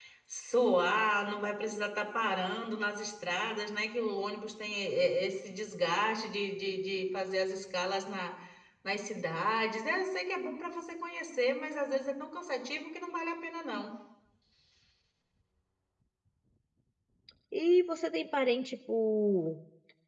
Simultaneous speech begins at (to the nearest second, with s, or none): none